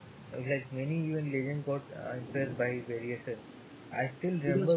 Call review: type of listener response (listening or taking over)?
listening